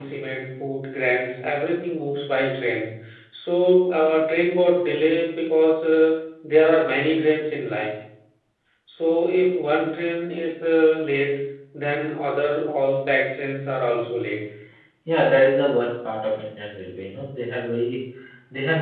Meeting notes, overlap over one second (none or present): none